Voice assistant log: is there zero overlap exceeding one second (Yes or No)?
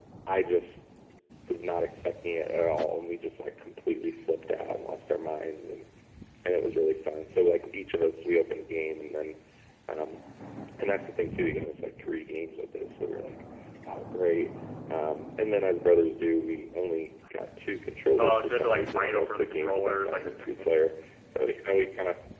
No